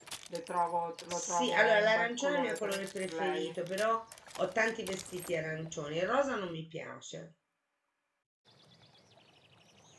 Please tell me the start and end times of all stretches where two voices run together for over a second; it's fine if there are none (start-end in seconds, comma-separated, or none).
1.1-3.5